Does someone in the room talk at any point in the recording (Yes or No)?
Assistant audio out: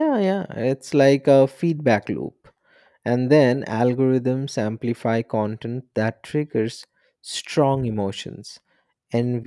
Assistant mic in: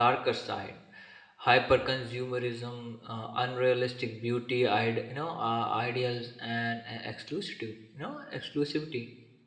Yes